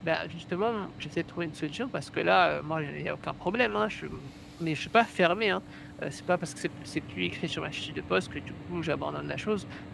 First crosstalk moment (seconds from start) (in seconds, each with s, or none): none